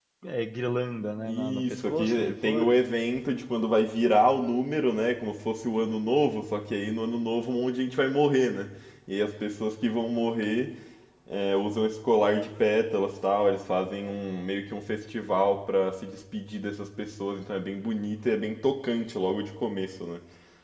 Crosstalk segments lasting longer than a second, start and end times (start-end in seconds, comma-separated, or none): 1.3-2.8